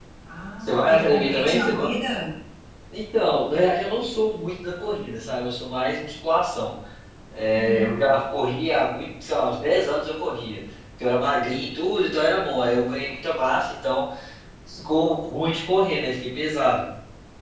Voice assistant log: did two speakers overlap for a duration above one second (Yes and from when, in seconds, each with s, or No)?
Yes, from 0.6 s